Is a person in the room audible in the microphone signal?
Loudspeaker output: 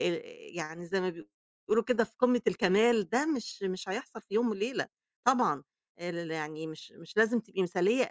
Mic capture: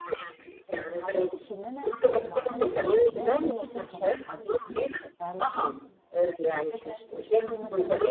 Yes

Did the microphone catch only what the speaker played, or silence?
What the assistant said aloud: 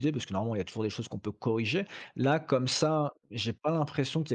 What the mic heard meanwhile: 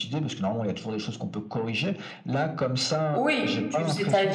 No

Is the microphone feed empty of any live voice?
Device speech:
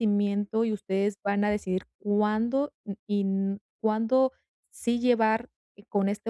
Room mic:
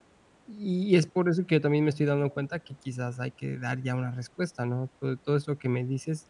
No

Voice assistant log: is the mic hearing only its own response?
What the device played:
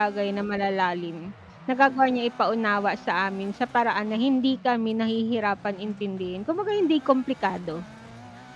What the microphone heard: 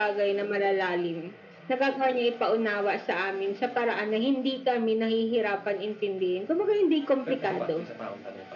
No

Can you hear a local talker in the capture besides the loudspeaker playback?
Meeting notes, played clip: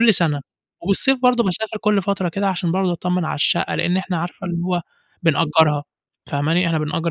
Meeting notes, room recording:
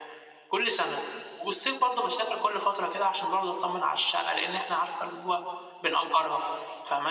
No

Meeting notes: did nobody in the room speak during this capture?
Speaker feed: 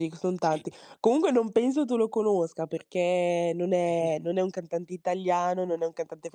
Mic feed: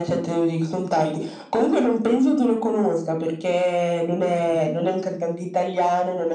Yes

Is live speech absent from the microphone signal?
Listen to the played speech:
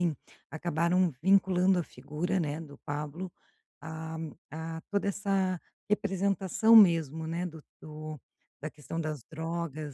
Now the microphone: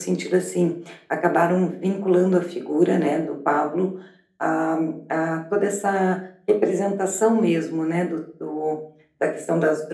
Yes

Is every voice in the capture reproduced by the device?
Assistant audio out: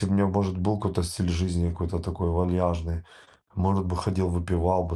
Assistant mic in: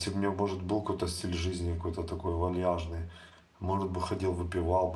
Yes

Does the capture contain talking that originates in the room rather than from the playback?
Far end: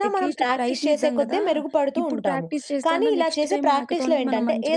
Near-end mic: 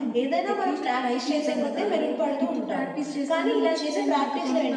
Yes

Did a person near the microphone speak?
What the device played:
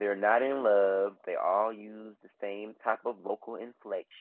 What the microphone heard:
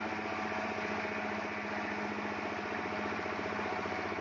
No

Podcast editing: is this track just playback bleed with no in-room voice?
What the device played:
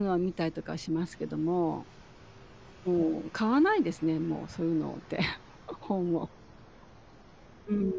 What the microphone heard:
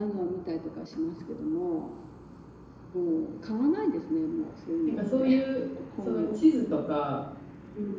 No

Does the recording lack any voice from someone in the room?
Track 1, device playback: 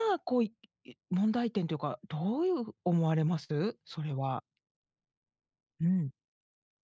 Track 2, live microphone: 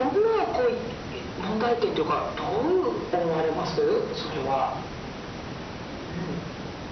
Yes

